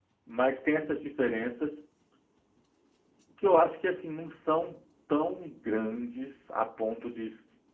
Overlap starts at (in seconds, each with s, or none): none